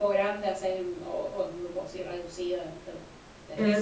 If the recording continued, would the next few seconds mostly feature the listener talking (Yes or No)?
Yes